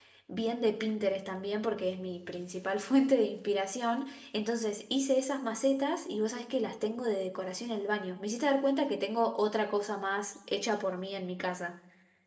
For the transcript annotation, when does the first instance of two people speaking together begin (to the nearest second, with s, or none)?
none